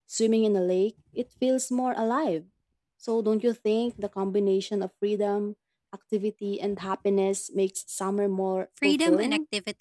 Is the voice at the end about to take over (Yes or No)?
Yes